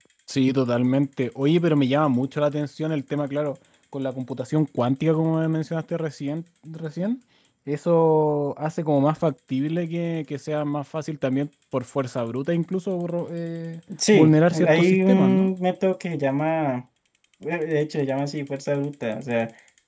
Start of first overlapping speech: 13.9 s

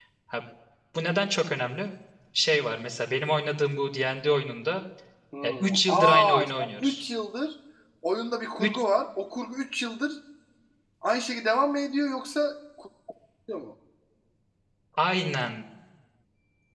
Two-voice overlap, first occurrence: 5.6 s

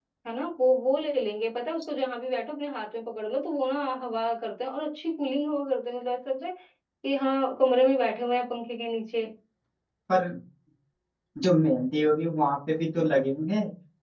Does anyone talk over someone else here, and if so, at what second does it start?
none

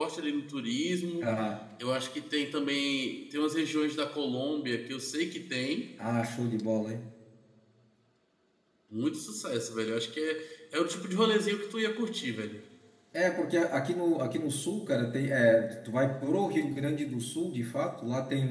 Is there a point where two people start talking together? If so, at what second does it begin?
none

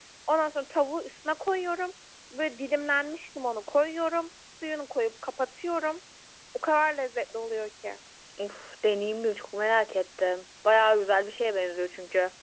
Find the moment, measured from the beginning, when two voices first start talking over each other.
none

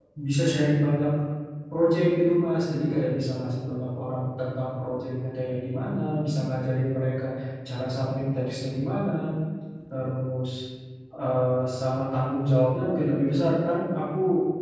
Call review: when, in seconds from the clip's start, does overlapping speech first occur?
none

